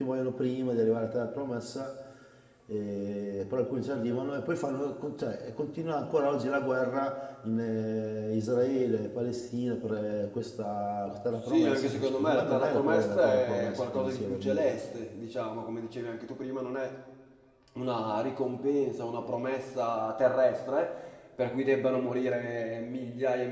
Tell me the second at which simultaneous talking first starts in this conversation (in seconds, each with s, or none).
11.5 s